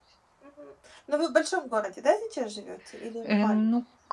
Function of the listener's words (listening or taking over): taking over